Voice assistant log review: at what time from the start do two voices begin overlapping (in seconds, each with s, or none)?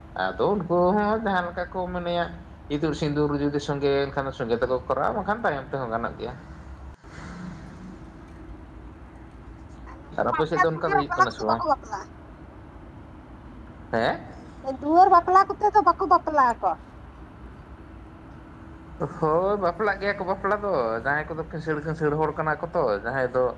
10.3 s